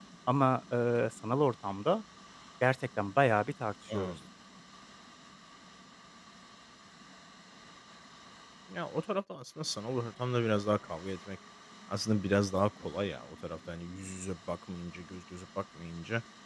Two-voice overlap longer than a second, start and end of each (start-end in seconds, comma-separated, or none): none